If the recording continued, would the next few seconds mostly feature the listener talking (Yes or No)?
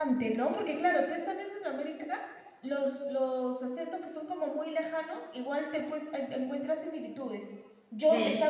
No